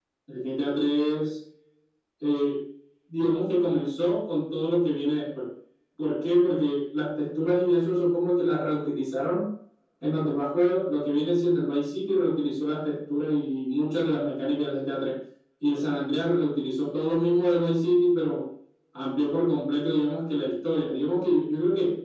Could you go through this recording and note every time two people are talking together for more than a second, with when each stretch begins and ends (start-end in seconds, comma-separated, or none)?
none